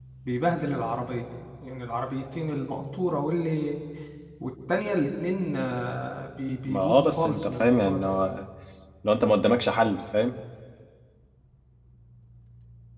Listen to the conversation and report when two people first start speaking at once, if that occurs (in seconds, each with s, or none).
6.7 s